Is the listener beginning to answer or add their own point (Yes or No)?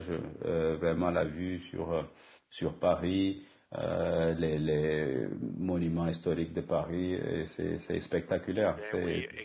Yes